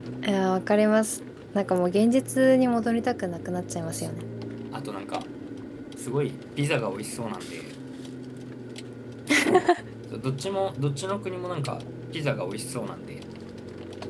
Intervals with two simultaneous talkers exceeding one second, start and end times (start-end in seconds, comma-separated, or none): none